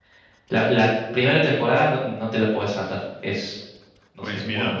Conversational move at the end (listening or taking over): taking over